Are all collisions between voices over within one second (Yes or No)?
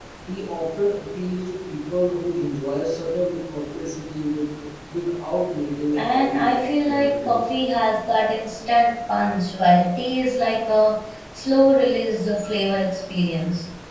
No